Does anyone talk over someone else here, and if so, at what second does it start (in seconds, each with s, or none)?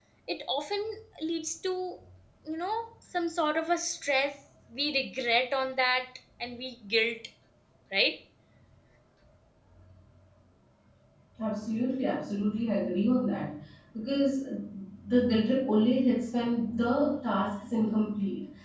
none